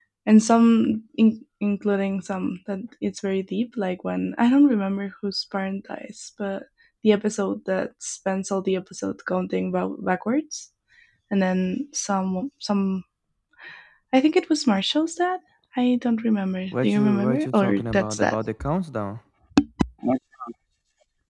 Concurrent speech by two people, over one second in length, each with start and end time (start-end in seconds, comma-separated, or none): 16.8-18.4